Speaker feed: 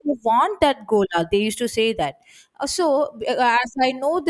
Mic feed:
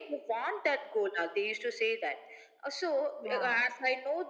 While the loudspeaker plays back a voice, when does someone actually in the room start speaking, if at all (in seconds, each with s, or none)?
3.2 s